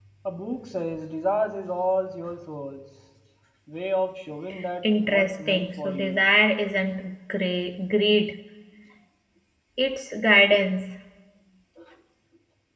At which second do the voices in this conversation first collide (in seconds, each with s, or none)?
4.8 s